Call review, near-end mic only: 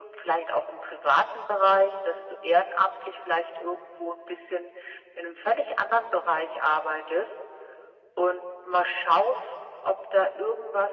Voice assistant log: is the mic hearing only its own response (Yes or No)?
Yes